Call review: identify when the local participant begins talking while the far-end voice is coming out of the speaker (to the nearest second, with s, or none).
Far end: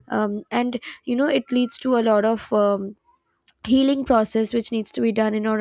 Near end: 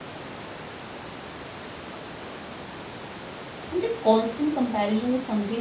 4 s